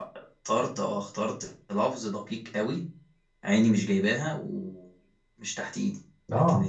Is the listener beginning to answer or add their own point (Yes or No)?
No